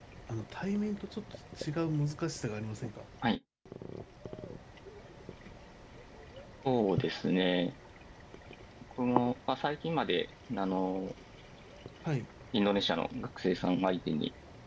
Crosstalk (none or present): none